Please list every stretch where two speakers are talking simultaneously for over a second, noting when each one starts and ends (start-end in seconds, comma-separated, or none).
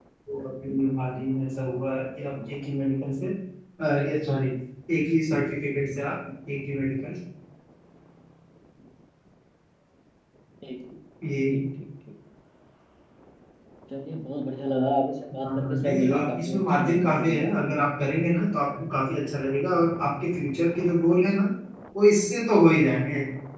15.4-17.7